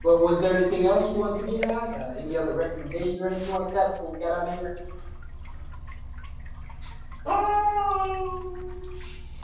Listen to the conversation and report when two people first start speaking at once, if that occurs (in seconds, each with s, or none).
none